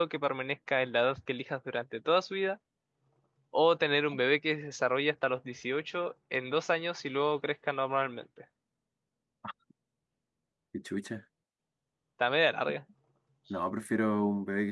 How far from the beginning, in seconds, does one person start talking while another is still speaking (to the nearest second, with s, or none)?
none